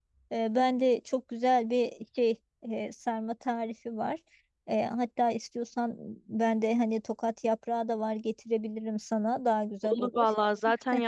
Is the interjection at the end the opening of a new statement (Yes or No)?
Yes